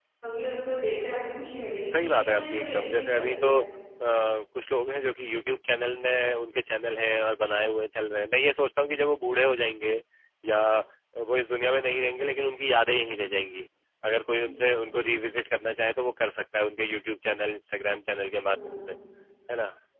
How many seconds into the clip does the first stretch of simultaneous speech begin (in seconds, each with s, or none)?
1.8 s